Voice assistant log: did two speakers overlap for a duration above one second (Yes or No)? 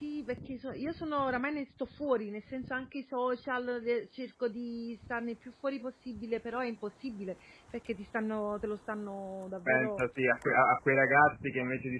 No